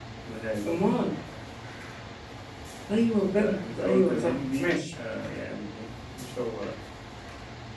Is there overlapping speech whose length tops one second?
Yes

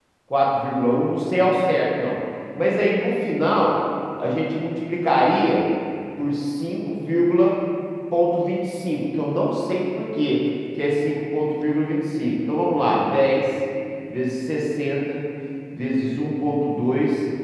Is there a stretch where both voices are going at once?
No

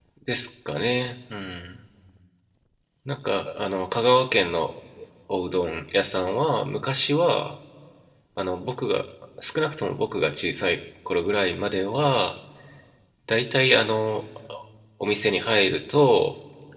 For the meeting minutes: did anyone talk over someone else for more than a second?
No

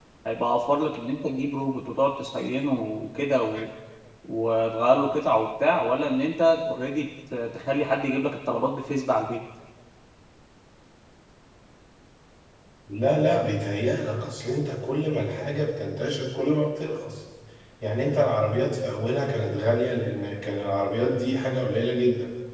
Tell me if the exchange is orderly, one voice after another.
Yes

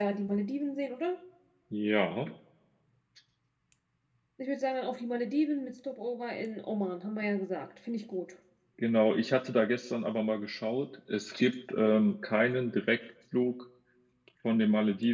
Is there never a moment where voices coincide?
Yes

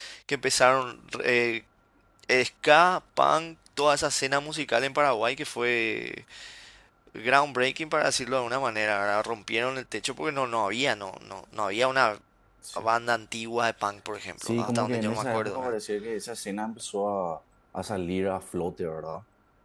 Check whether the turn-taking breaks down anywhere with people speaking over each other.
Yes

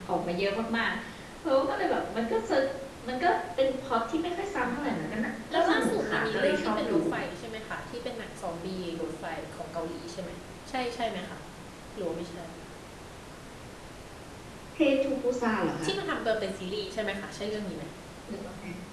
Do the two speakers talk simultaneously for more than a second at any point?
Yes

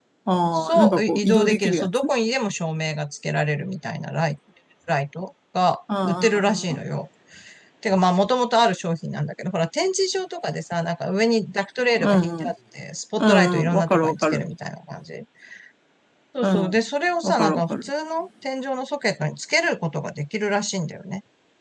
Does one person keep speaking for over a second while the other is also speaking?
Yes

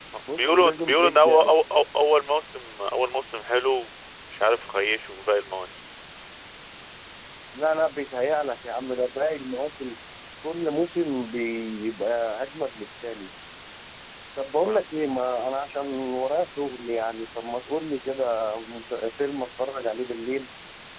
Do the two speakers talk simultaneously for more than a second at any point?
Yes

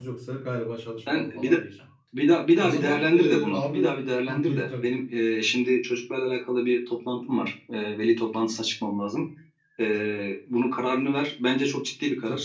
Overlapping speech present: Yes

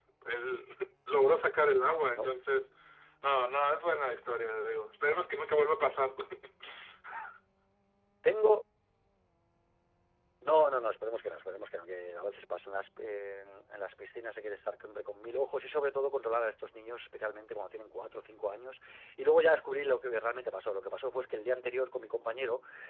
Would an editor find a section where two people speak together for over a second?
No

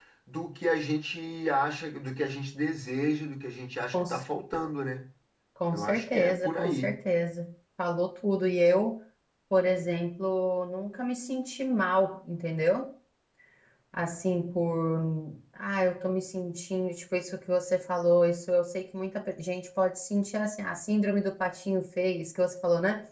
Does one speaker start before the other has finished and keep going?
Yes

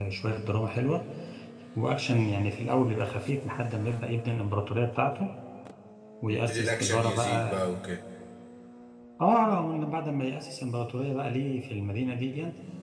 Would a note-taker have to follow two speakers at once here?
Yes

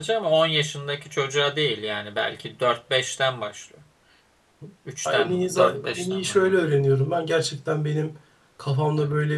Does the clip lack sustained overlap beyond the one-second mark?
No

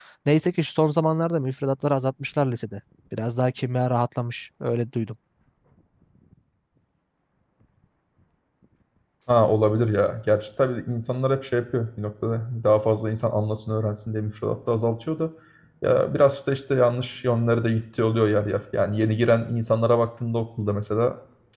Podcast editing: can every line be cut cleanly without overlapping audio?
Yes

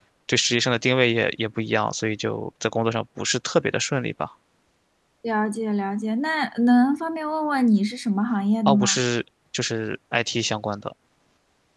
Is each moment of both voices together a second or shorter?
Yes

